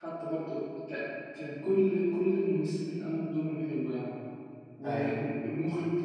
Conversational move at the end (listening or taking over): listening